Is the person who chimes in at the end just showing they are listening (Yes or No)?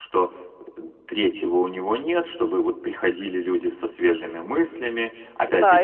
No